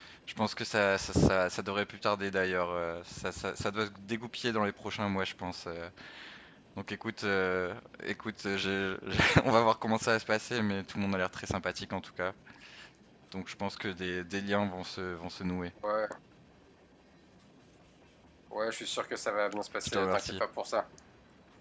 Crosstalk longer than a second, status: none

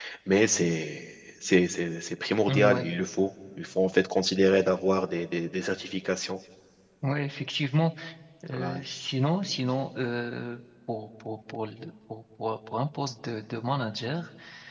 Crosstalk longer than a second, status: none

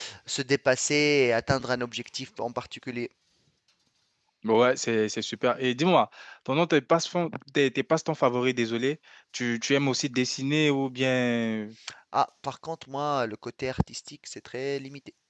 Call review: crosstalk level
none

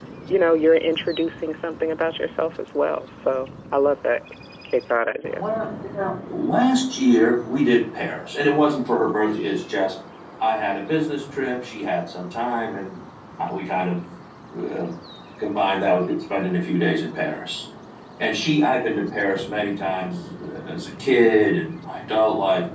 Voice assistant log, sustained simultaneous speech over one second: none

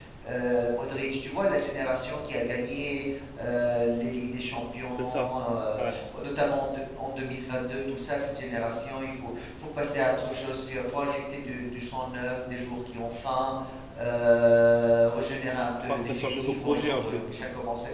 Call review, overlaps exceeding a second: present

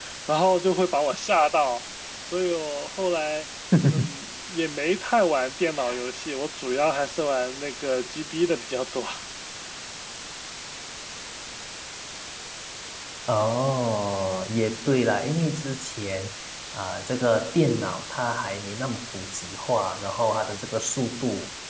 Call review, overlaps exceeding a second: none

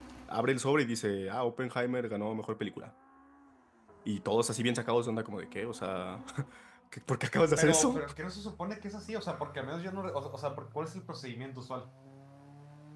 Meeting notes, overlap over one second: none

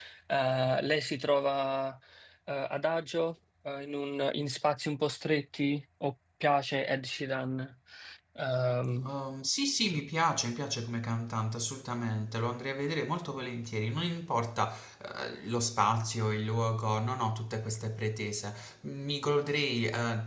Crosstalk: none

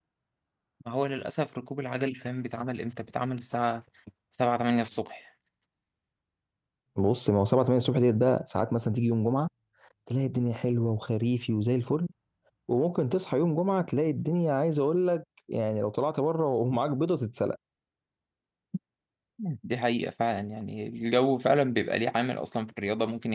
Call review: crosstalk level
none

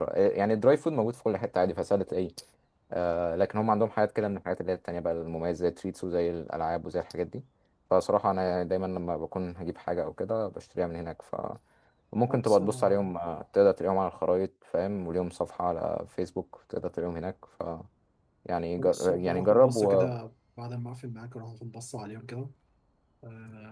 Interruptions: present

